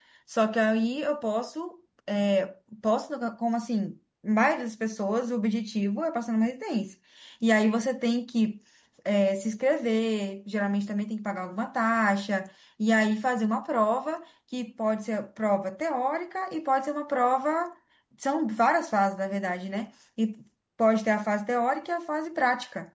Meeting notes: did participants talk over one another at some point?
No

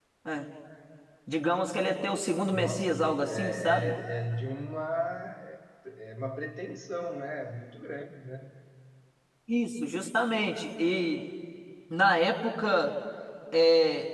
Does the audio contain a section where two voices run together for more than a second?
Yes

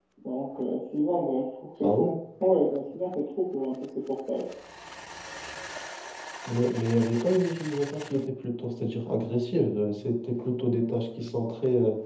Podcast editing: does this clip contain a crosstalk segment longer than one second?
No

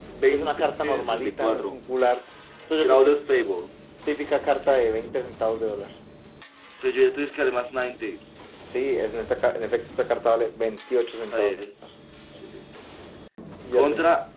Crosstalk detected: Yes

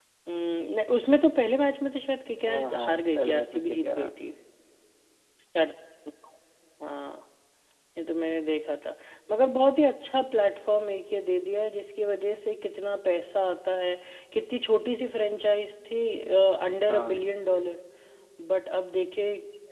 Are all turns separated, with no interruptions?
No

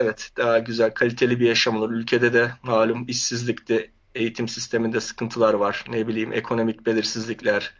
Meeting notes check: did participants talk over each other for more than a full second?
No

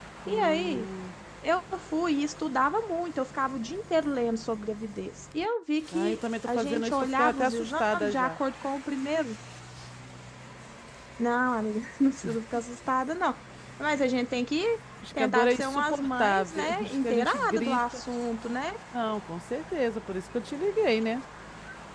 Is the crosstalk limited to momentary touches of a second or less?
No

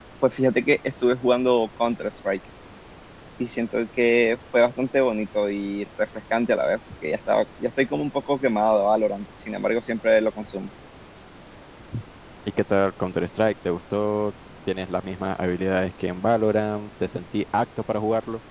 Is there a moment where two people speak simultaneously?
No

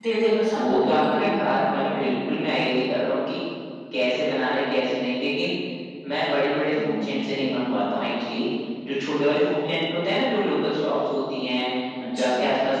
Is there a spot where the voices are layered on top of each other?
Yes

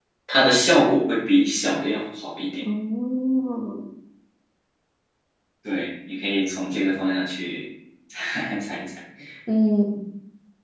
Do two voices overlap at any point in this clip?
No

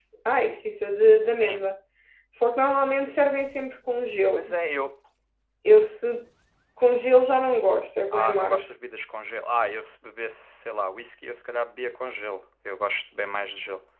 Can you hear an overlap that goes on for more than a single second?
No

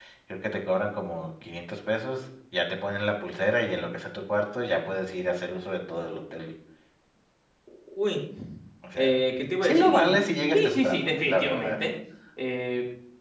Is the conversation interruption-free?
No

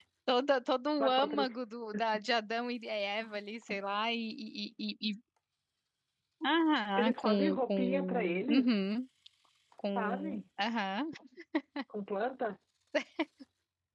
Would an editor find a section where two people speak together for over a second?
Yes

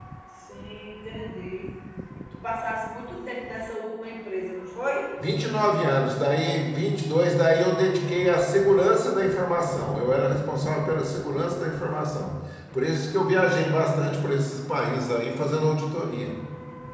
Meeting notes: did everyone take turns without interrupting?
Yes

